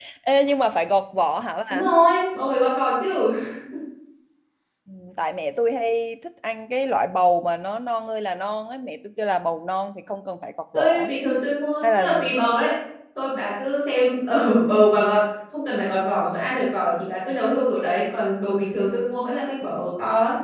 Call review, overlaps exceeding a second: none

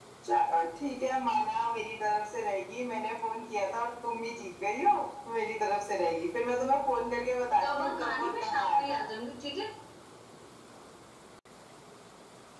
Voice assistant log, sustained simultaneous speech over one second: present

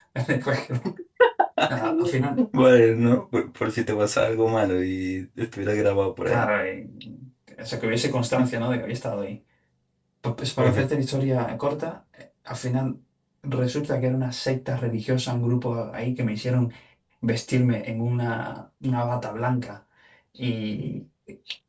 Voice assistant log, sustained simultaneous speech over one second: none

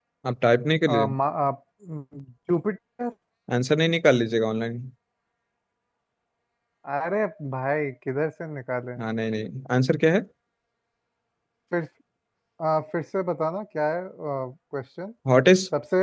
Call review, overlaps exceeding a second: none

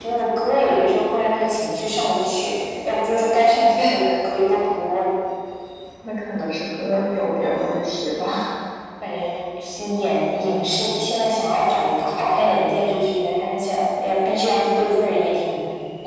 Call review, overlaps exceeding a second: none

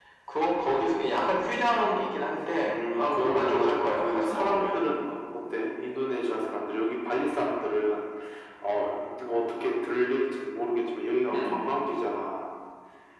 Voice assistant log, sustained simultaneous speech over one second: present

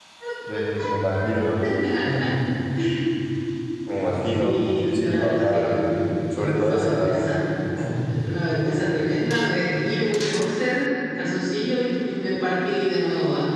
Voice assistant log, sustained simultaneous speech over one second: present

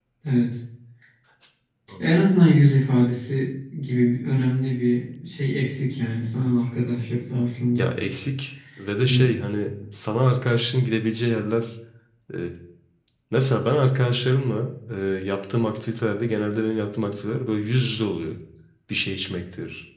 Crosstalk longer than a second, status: none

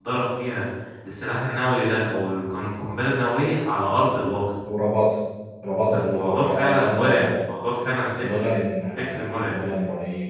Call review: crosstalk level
present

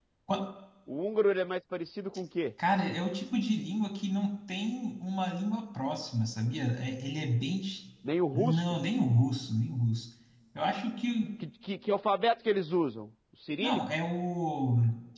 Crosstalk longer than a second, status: none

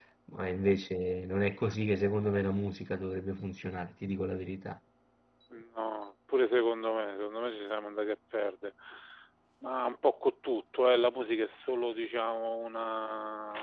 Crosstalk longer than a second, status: none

